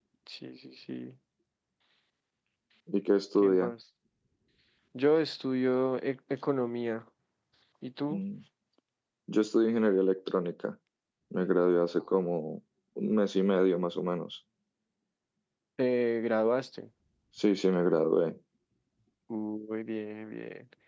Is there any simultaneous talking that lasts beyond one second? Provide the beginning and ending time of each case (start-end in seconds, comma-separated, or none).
none